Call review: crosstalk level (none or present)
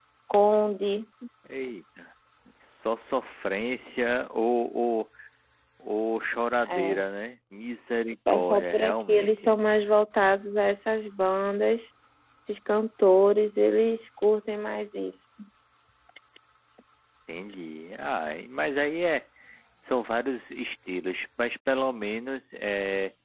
present